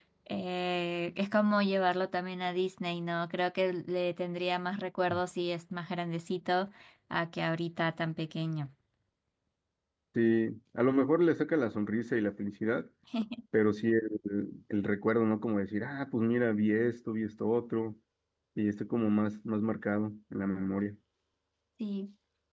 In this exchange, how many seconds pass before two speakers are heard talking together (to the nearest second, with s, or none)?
none